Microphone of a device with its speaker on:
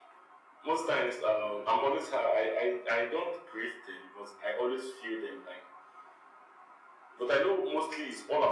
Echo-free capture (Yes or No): No